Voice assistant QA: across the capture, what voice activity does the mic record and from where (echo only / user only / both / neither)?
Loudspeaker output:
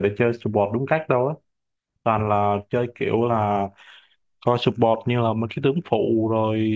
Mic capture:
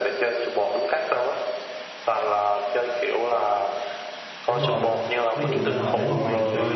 both